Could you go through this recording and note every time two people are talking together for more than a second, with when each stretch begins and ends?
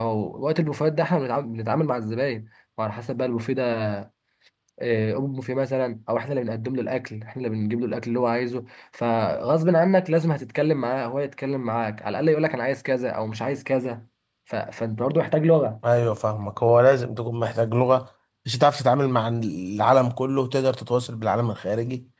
none

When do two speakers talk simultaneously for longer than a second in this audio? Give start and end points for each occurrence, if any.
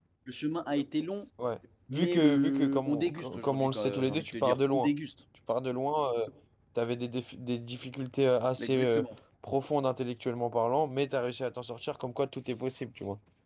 1.9-4.9

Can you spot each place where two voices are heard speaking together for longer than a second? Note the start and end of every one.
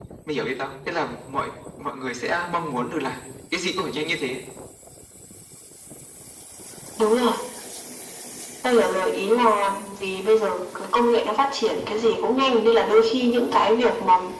none

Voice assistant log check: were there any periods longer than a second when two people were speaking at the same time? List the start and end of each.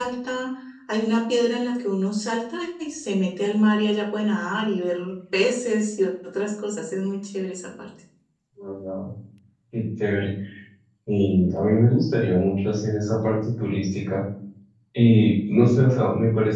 none

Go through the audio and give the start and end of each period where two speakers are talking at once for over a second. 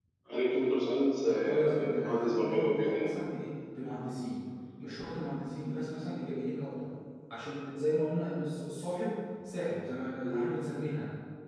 1.2-3.2

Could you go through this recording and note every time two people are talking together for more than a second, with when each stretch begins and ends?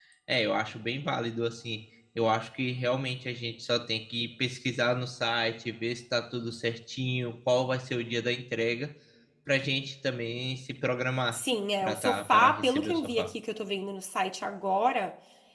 11.8-13.3

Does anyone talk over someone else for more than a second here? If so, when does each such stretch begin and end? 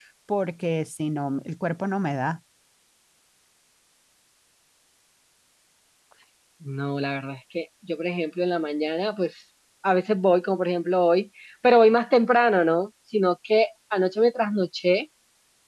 none

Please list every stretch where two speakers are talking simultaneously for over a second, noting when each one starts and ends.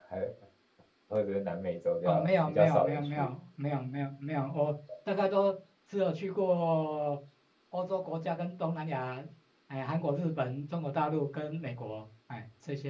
2.0-3.2

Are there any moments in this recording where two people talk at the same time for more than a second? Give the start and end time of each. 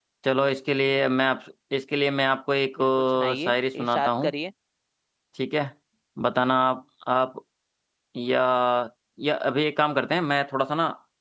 2.8-4.3

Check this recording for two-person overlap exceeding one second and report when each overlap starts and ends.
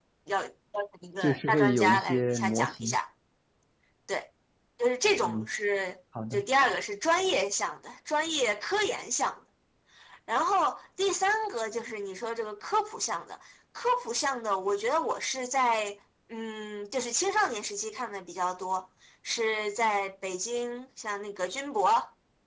1.2-3.0

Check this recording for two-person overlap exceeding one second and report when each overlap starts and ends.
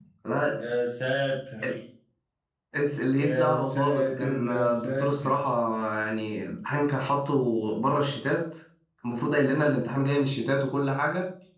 3.2-5.3

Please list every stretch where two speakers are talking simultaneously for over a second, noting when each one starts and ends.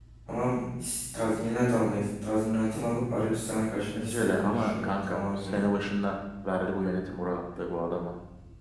4.0-5.6

